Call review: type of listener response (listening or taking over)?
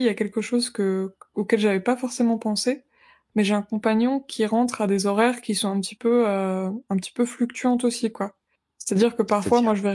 listening